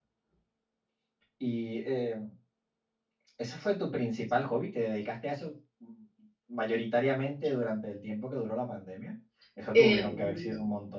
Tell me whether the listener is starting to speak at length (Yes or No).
No